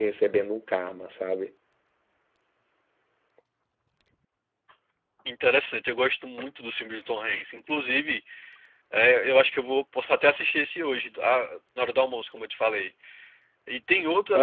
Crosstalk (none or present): none